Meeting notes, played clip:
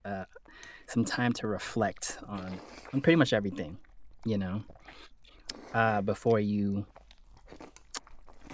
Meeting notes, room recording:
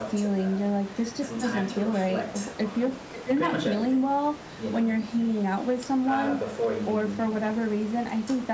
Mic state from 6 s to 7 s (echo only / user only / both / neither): both